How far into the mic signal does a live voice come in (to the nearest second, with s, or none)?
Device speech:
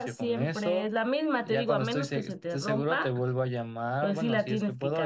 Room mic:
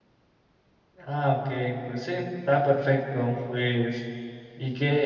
1 s